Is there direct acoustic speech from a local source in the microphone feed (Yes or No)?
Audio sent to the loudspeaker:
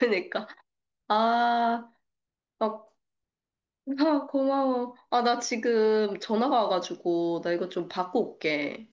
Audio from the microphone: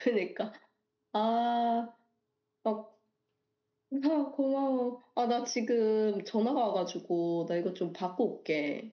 No